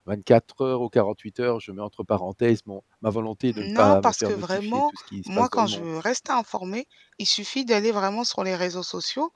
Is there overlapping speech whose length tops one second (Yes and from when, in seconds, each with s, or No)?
Yes, from 3.5 s